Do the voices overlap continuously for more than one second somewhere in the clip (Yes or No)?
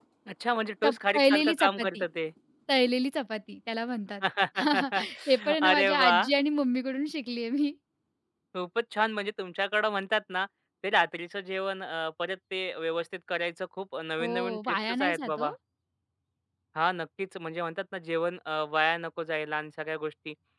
Yes